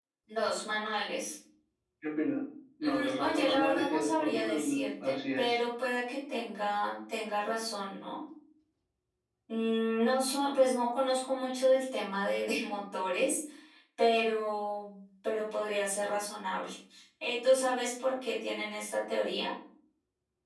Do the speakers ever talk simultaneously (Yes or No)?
Yes